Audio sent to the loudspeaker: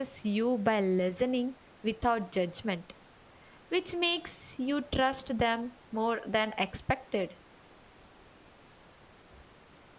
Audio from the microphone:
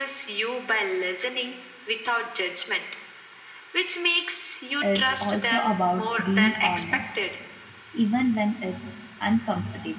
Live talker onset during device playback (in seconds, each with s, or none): 4.8 s